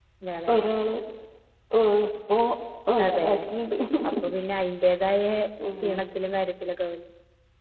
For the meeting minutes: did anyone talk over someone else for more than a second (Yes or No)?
No